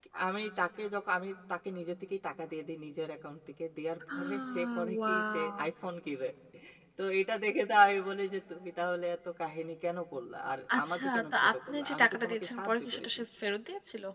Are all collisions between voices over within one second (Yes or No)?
No